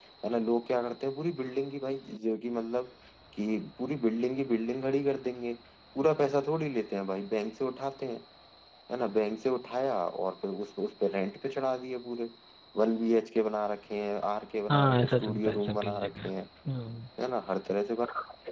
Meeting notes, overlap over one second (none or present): present